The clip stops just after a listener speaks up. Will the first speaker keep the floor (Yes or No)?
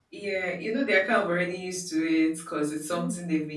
Yes